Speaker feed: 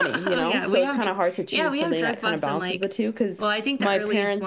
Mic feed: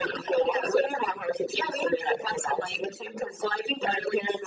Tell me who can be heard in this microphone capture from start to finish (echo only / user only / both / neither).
echo only